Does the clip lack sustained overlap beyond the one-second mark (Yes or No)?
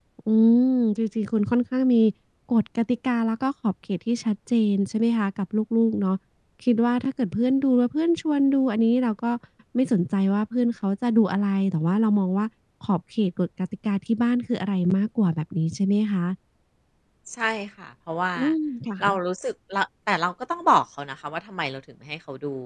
Yes